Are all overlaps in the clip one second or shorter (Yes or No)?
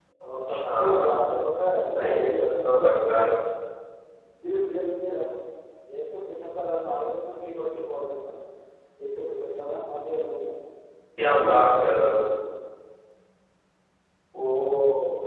No